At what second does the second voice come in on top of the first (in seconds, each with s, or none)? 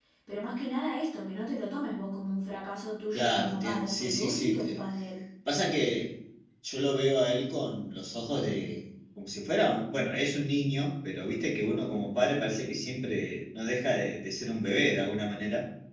3.1 s